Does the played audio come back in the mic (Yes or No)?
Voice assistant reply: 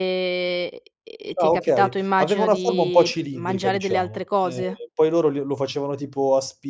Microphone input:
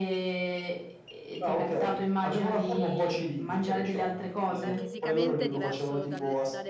Yes